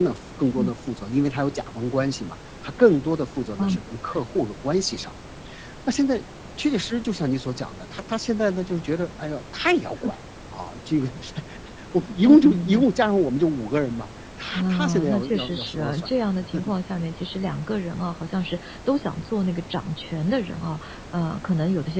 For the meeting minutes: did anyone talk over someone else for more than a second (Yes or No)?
Yes